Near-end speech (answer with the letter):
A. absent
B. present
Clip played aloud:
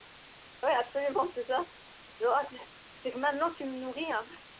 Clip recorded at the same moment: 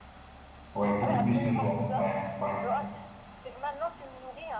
B